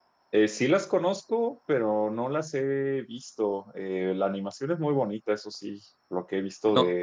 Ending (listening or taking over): listening